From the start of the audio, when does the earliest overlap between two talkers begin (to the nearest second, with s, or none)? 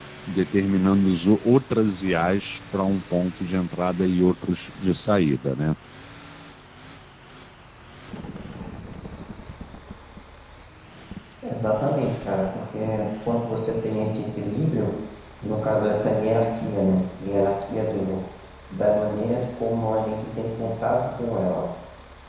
none